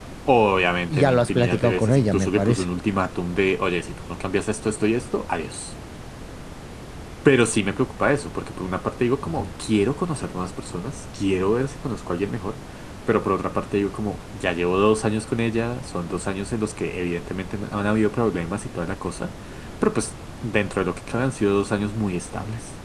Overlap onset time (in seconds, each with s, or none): 0.9 s